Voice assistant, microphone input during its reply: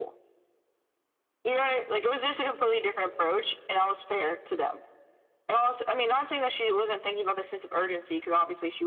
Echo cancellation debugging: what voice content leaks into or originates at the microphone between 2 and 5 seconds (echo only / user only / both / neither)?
echo only